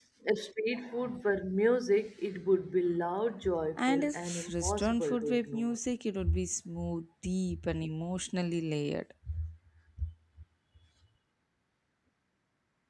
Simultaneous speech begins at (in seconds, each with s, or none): 3.8 s